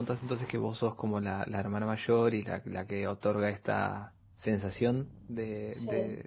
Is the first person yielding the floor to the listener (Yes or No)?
No